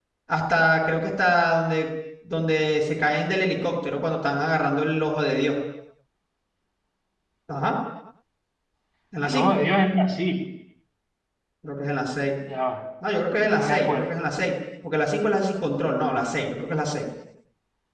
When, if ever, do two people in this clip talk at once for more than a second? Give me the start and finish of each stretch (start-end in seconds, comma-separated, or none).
none